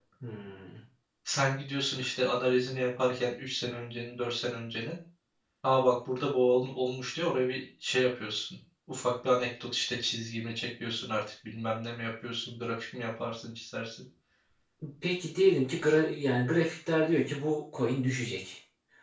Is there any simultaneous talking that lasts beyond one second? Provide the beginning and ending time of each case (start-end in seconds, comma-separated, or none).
none